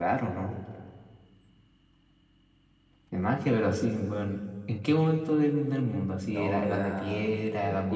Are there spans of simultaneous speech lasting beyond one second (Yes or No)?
Yes